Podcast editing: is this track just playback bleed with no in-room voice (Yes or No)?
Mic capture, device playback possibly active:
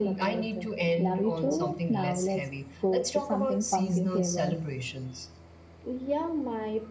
No